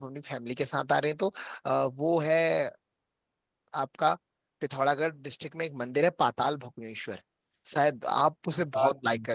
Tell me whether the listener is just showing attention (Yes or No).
Yes